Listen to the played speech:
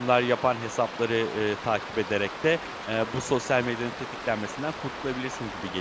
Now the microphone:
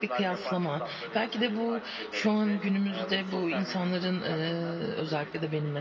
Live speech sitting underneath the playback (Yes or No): No